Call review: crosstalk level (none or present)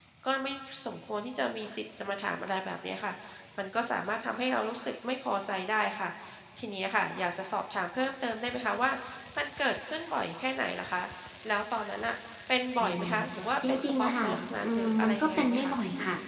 present